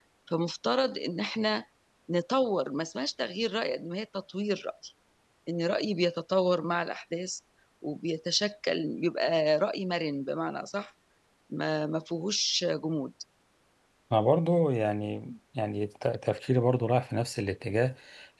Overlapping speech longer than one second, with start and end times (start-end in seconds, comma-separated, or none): none